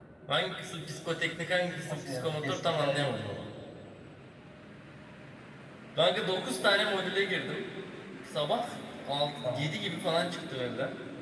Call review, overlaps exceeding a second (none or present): present